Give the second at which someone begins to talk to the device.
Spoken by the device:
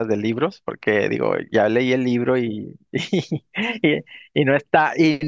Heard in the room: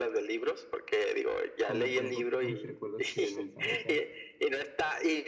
2 s

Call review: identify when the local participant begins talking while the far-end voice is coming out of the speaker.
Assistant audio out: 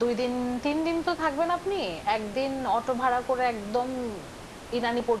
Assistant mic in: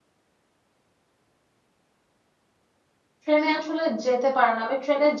3 s

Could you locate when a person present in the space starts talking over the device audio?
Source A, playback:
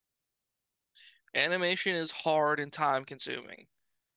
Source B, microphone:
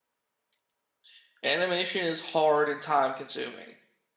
none

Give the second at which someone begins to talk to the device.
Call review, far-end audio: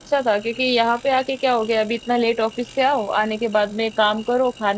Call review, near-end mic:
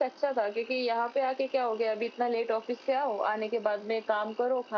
none

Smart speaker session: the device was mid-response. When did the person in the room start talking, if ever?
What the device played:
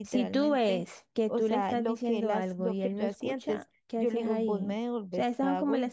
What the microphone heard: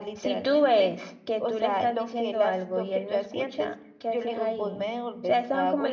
none

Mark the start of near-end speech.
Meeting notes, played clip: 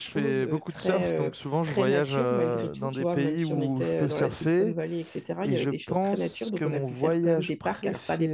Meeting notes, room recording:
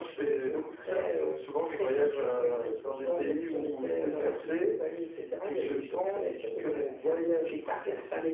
none

